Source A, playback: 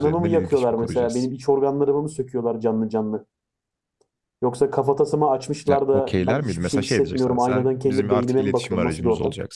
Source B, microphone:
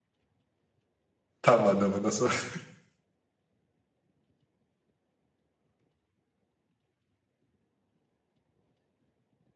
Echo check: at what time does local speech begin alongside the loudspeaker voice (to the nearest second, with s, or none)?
1 s